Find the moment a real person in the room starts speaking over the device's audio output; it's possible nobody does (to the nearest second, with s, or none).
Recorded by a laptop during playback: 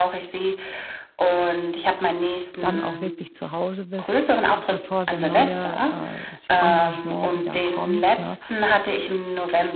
3 s